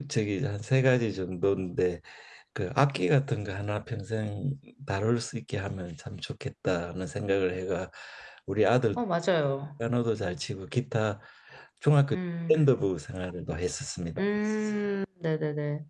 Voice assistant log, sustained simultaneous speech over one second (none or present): none